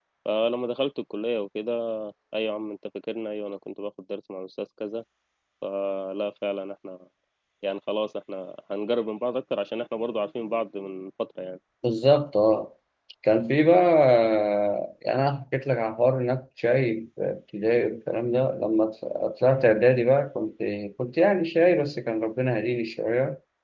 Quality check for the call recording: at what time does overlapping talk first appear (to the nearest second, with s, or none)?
none